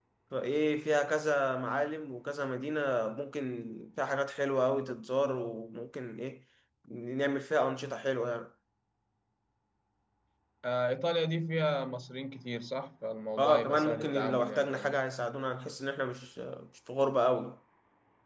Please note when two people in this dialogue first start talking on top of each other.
13 s

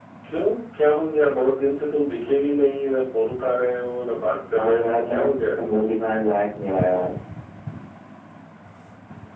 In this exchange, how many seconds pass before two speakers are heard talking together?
5 s

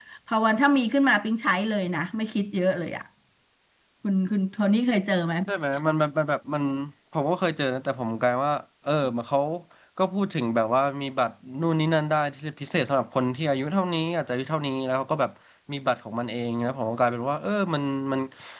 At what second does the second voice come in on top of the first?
none

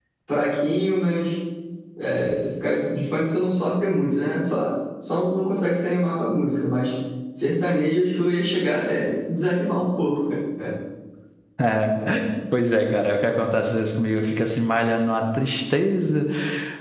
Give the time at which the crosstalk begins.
none

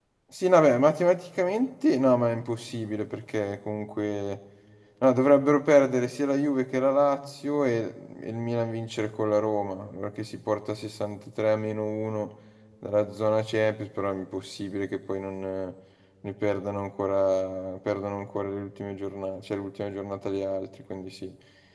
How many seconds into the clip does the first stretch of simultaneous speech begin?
none

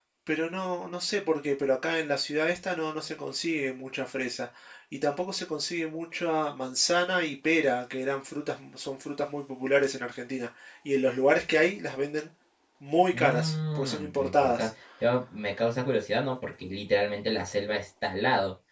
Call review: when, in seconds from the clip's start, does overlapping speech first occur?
13 s

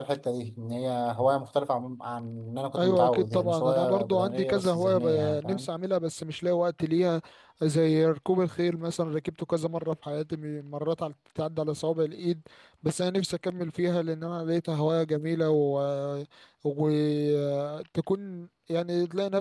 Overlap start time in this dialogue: 3 s

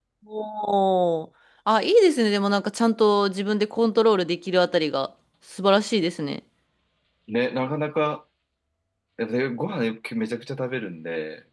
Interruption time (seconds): none

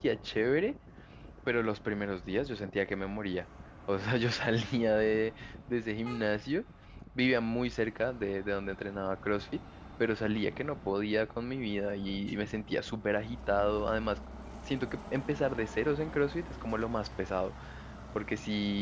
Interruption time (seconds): none

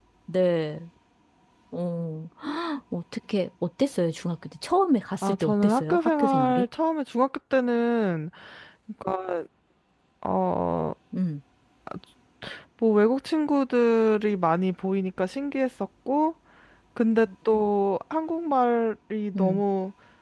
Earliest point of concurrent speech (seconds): 5 s

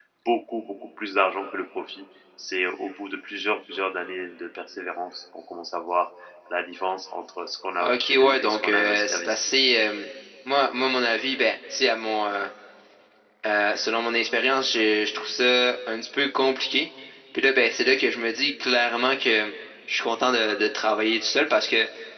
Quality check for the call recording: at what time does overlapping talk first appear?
8 s

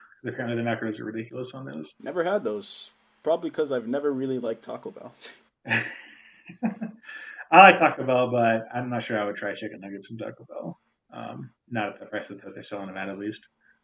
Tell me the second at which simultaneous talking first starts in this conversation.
none

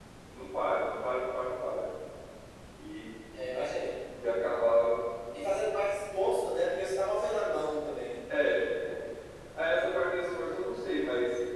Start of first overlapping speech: none

